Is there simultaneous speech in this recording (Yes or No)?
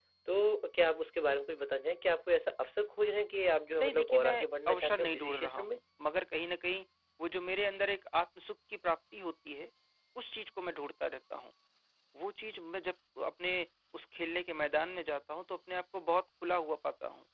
Yes